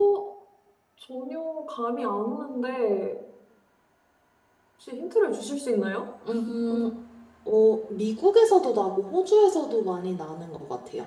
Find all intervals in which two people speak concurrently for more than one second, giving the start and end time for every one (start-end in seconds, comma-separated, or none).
none